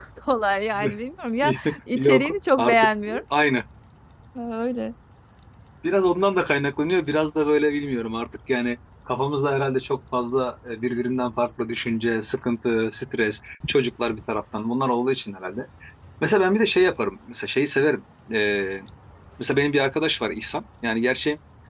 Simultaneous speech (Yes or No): Yes